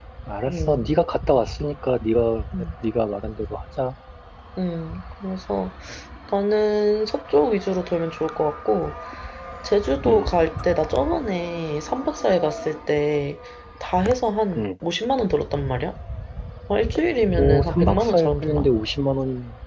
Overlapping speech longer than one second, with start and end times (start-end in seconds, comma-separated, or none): 17.4-18.7